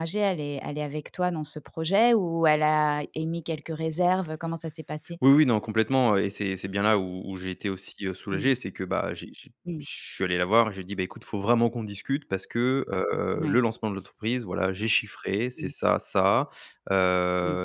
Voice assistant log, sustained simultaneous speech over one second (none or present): none